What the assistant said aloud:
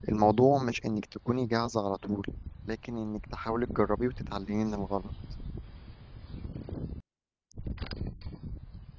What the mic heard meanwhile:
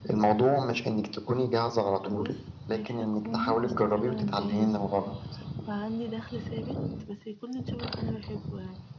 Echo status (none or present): present